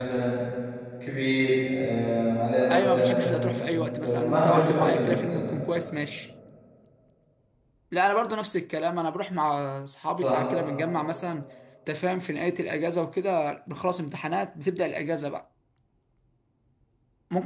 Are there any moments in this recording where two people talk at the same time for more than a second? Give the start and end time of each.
2.7-5.5

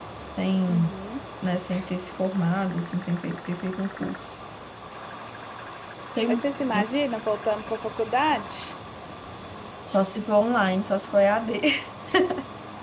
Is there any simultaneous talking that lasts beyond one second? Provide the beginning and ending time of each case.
none

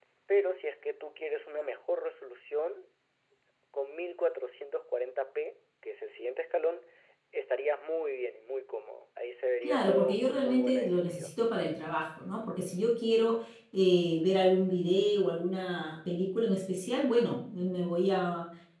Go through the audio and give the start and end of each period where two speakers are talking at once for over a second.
9.6-11.3

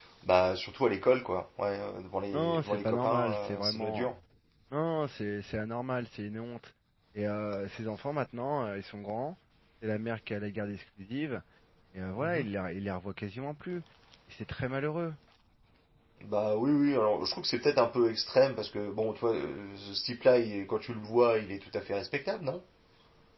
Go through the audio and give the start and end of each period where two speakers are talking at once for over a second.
2.3-4.1

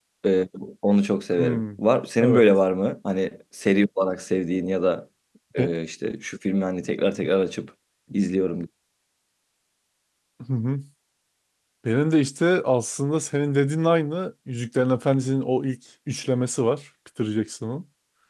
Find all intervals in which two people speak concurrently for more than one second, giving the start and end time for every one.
none

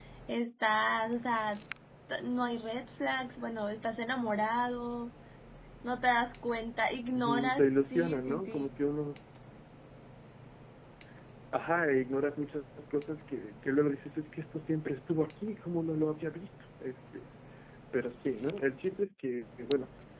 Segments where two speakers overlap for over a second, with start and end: 7.2-8.7

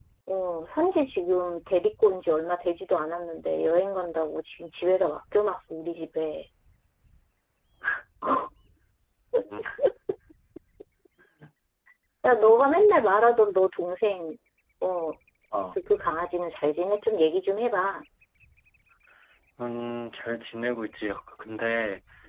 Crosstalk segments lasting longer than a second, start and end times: none

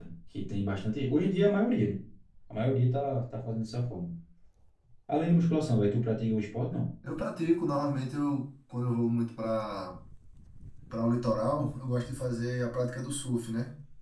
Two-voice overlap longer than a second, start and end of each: none

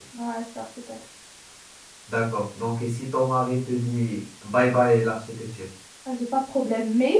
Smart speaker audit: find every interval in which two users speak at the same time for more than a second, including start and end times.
none

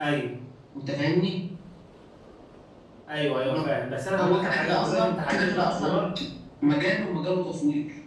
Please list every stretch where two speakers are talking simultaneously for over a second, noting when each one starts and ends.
4.2-6.0

